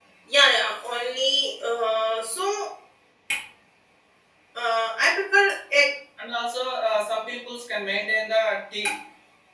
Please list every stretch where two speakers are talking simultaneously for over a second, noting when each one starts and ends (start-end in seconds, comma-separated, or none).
none